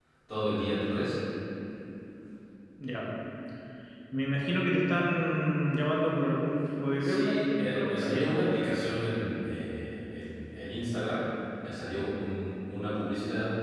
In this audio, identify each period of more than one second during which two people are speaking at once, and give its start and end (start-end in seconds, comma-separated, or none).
7.0-8.4